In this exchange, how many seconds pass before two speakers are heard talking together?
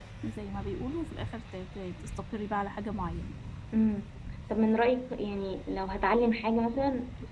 none

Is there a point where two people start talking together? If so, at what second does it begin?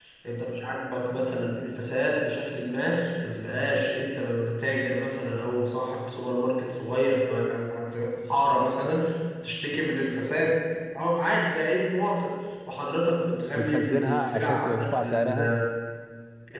13.6 s

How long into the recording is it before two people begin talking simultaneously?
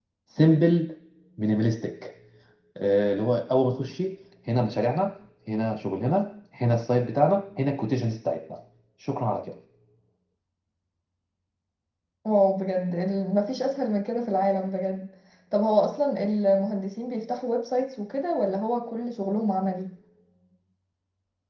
none

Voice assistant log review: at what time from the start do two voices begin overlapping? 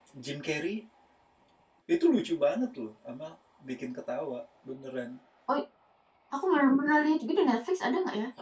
none

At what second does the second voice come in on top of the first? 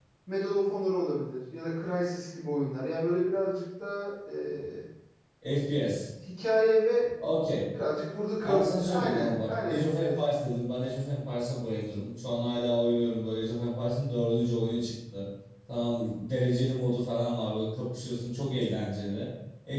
8.4 s

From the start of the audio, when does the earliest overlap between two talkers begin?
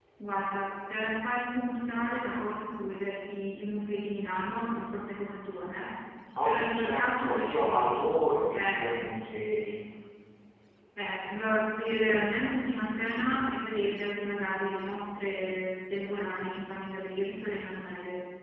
6.4 s

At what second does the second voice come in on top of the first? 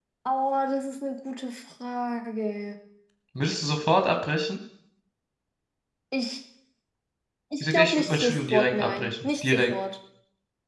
7.6 s

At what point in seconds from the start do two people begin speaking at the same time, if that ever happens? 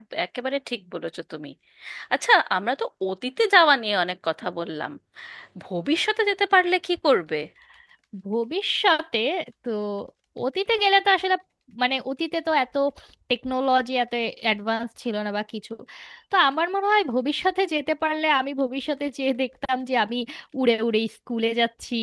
none

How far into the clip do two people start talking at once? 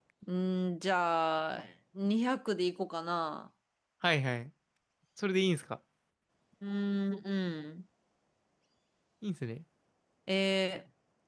none

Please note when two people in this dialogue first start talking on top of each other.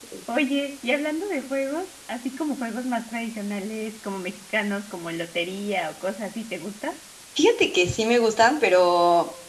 none

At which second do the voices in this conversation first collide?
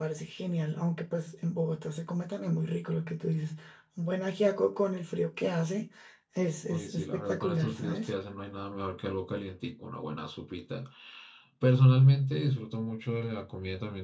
6.7 s

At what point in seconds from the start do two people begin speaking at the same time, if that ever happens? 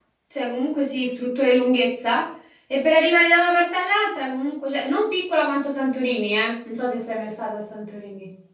none

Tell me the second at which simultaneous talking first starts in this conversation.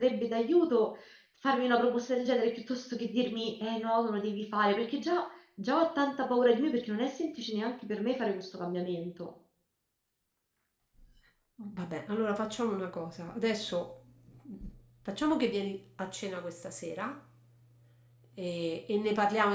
none

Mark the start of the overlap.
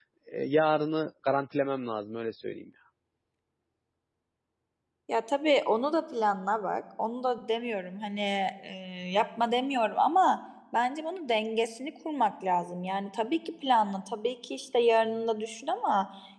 none

